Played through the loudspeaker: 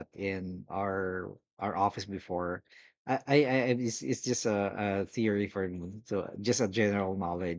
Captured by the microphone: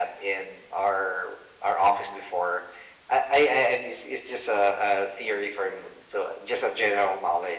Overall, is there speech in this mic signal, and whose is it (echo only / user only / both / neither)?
echo only